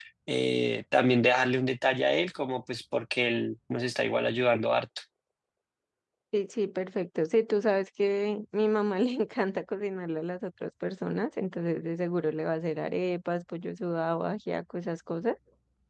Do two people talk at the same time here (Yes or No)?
No